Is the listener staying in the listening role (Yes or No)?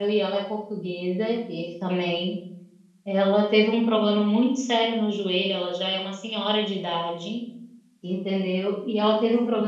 Yes